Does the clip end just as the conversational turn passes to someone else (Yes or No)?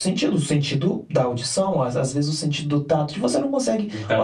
Yes